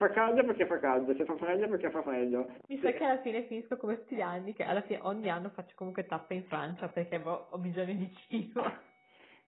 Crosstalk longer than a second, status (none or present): none